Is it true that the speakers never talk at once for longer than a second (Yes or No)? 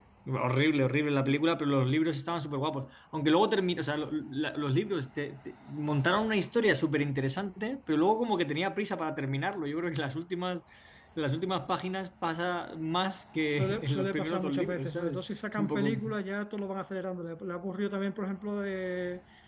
No